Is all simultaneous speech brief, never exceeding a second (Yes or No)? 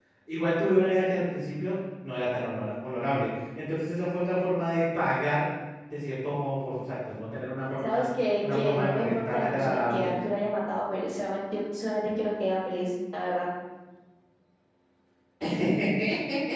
No